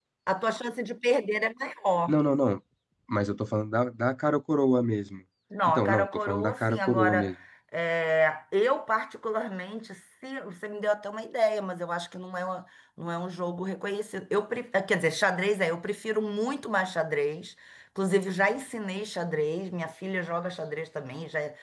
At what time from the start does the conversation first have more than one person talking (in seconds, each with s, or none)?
5.7 s